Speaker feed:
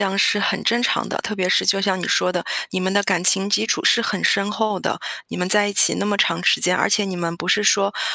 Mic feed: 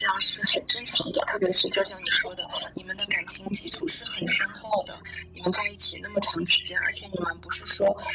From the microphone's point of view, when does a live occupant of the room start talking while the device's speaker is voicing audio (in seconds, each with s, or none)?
none